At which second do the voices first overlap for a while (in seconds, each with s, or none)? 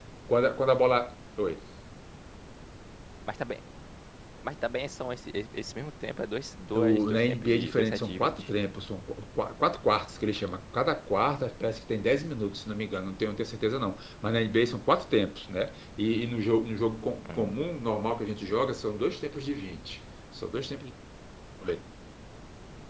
6.7 s